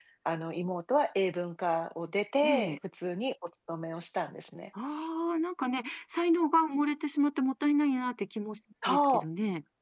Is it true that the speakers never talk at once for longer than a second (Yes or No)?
Yes